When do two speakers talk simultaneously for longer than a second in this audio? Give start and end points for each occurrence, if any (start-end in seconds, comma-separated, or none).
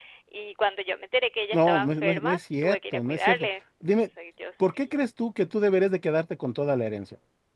1.5-3.5